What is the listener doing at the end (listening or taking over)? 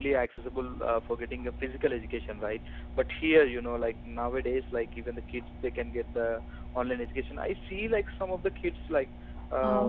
listening